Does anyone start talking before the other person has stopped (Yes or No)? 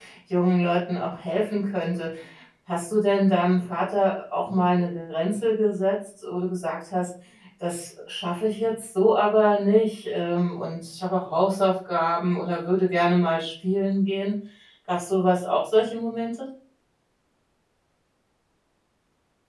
No